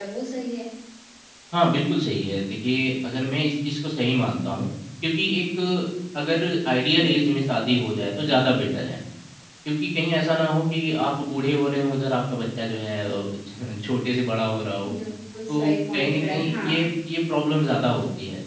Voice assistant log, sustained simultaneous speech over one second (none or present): present